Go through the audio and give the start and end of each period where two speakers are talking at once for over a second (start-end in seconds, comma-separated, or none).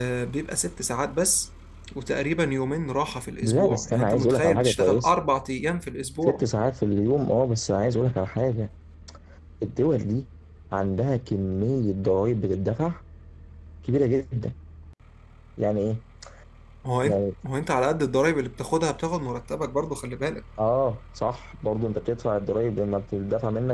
3.4-5.1